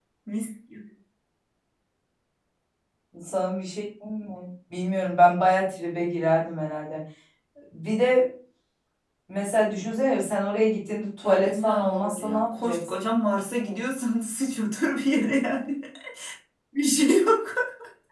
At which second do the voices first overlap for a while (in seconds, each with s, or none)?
11.2 s